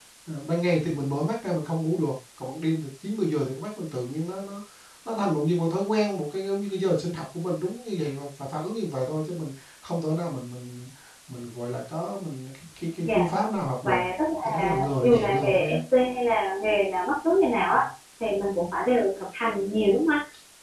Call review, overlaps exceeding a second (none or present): present